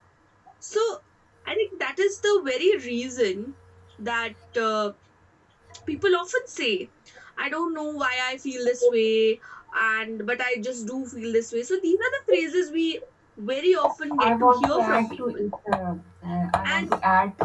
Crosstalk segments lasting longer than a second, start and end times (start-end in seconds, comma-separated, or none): 14.2-15.4